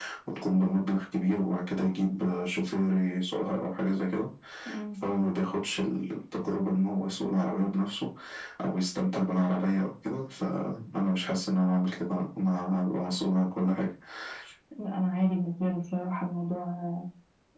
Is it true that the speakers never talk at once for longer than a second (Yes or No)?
Yes